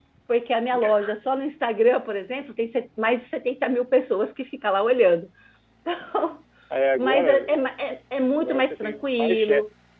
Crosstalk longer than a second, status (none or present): present